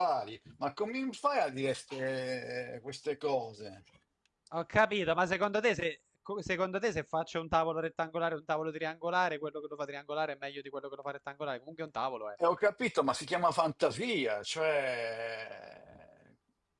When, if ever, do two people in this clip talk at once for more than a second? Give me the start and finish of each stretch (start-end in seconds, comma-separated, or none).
none